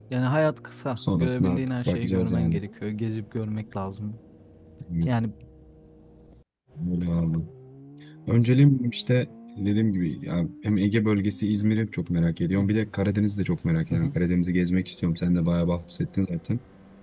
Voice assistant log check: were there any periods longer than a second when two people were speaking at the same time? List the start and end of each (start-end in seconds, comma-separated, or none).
1.0-2.6